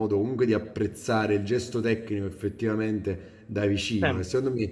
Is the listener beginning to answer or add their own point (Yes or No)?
No